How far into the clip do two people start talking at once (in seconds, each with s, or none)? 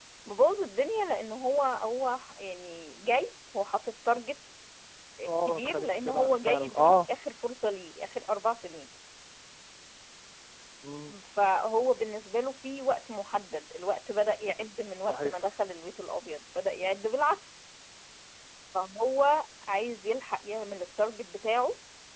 5.4 s